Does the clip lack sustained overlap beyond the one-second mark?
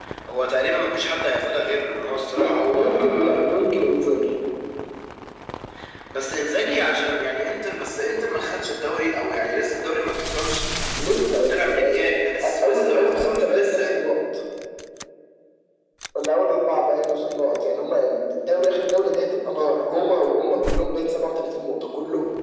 No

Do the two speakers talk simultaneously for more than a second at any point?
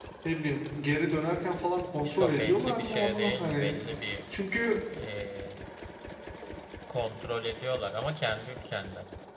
Yes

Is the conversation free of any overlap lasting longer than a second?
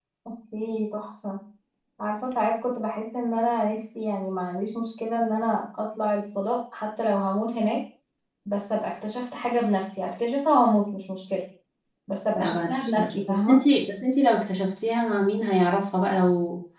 No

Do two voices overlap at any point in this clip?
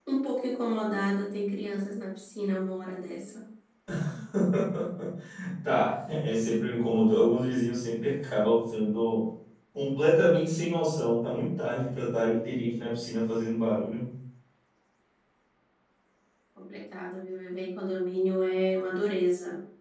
No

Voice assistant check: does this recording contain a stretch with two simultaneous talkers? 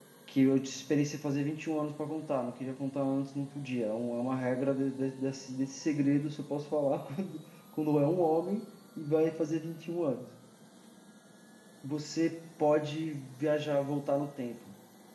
No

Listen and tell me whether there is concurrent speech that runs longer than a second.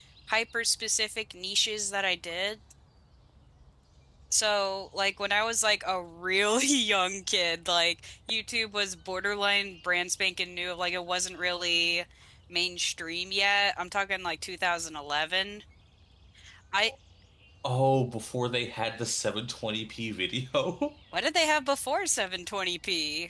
No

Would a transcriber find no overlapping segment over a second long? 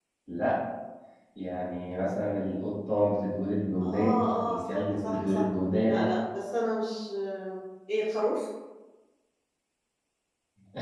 No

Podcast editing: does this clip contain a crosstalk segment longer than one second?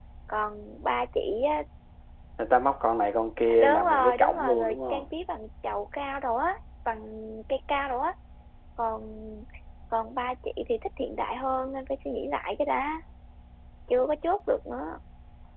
Yes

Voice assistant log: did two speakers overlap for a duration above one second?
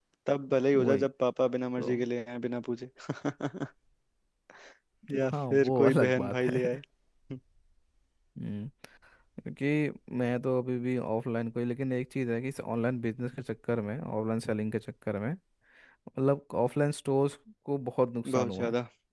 Yes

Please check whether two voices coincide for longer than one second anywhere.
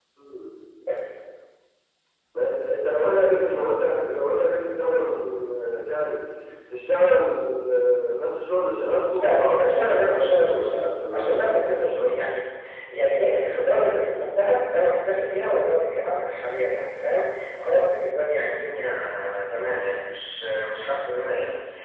Yes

